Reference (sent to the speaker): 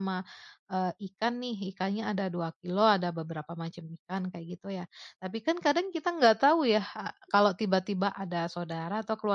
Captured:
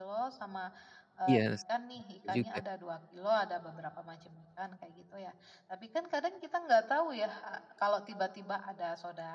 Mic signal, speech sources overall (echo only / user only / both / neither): both